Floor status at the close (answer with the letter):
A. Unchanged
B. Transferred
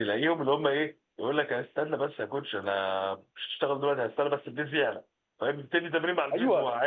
B